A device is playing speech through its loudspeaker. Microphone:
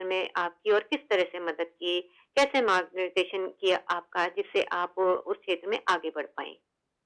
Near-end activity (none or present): none